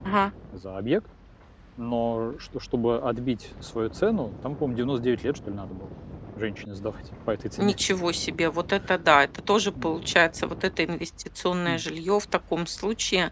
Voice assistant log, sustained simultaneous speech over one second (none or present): none